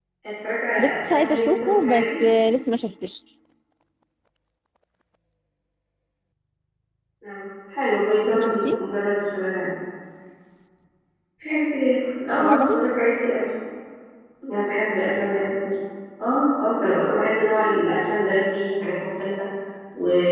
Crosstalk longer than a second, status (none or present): present